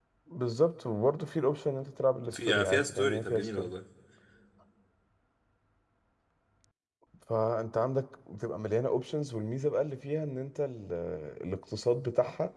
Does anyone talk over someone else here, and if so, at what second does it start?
2.3 s

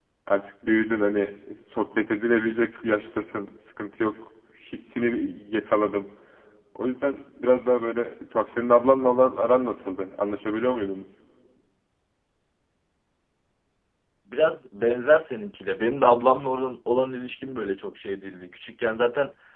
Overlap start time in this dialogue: none

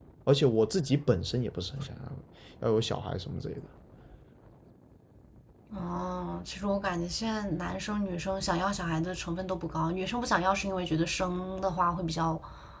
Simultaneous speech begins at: none

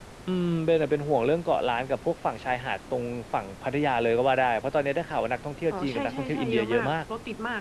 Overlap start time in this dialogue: 5.7 s

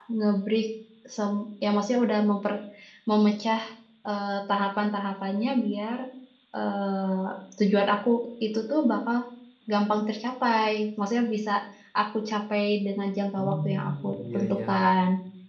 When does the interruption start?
13.4 s

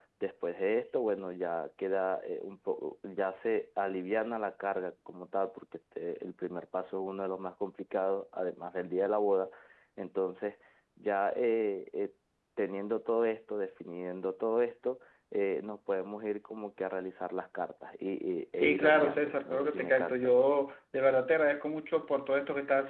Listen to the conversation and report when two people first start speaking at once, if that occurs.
18.6 s

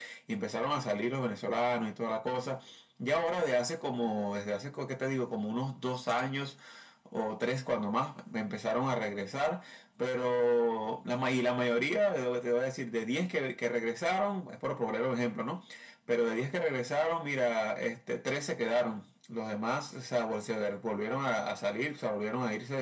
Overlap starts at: none

